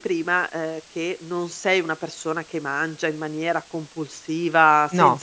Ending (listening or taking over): listening